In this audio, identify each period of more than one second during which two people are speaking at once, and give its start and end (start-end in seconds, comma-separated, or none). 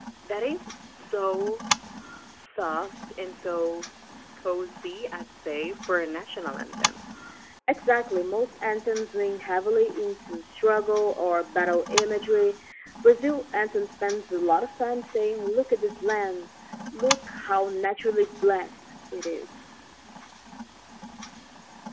none